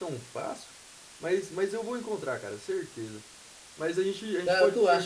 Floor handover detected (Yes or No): Yes